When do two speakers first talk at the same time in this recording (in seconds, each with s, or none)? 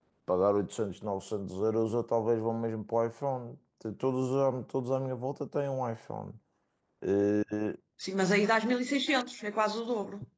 none